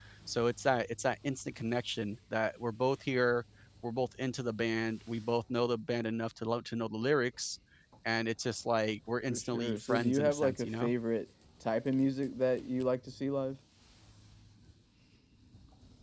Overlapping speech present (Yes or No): Yes